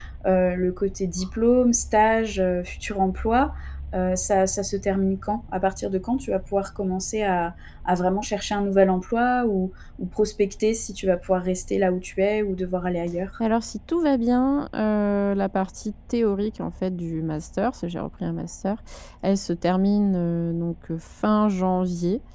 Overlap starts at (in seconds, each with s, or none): none